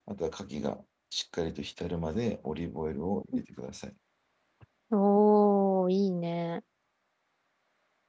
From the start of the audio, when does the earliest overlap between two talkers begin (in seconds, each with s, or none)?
none